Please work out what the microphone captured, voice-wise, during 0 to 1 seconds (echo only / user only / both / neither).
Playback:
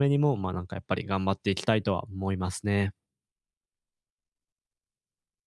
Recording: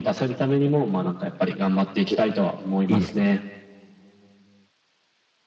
echo only